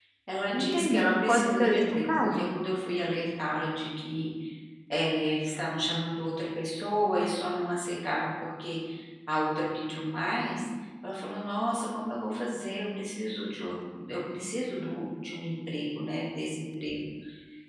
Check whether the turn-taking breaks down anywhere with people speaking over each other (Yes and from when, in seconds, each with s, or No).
Yes, from 0.5 s